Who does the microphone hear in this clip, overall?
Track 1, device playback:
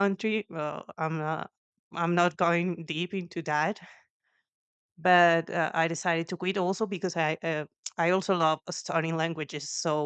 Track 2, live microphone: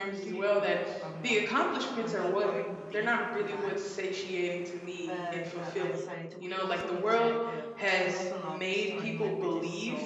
both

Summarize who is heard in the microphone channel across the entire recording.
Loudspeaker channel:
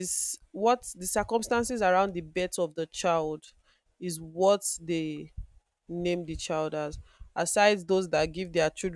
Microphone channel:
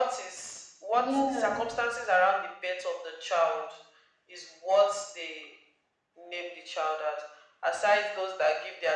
both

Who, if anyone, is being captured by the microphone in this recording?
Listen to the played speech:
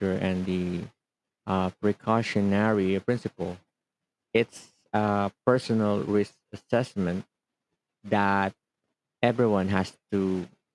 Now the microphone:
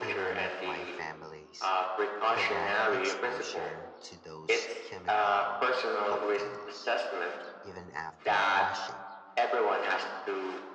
both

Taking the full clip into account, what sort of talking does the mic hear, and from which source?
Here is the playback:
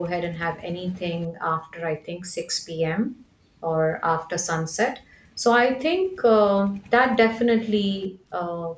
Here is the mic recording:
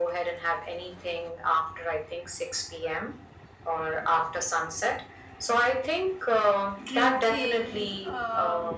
both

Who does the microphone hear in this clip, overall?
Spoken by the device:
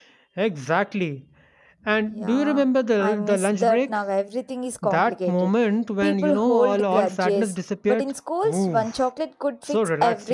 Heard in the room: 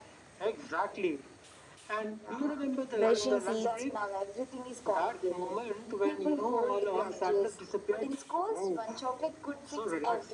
both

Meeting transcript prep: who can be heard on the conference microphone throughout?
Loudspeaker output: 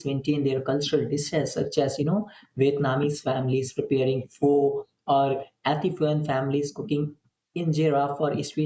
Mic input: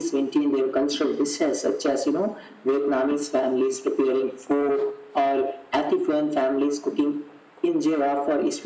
echo only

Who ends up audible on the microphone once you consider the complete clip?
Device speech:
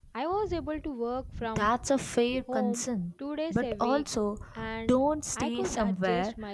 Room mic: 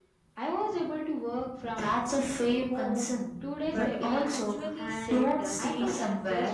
both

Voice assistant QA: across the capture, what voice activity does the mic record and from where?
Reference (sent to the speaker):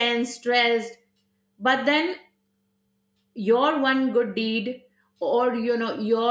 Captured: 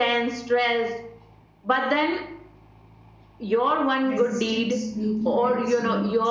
both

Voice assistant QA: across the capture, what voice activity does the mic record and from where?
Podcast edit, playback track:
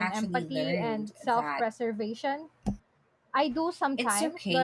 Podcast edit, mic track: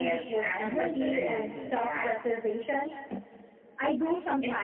both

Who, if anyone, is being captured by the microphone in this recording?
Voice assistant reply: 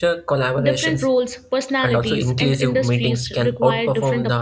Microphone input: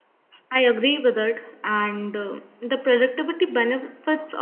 user only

